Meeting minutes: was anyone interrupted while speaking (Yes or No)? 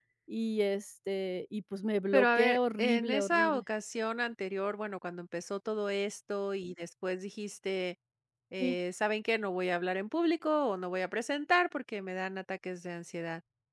Yes